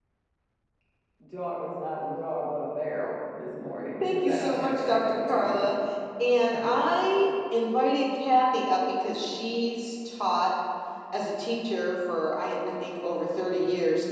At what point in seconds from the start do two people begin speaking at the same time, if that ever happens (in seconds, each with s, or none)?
4.0 s